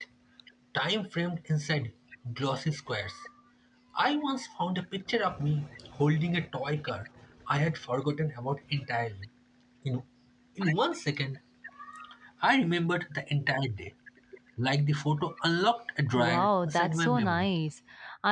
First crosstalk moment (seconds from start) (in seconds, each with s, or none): 16.1 s